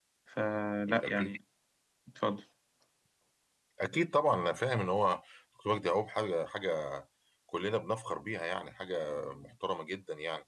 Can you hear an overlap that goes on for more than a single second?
No

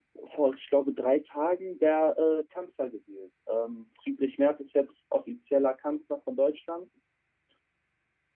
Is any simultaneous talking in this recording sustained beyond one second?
No

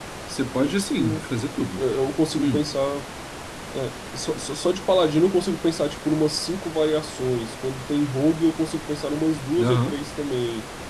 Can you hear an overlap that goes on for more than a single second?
No

